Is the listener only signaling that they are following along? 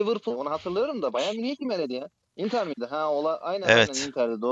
No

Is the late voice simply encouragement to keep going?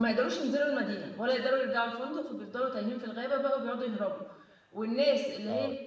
Yes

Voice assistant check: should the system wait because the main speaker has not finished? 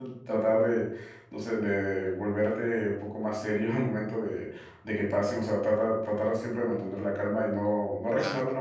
Yes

